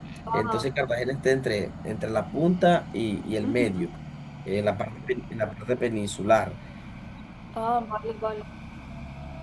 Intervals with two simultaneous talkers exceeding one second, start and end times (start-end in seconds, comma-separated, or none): none